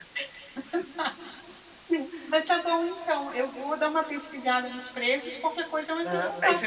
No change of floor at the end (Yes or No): No